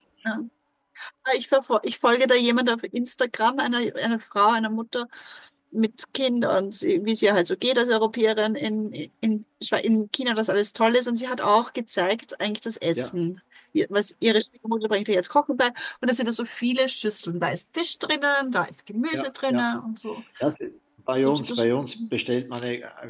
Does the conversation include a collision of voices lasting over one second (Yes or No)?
No